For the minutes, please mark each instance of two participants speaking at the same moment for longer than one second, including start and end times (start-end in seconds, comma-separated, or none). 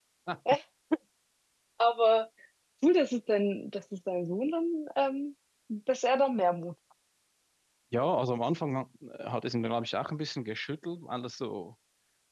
none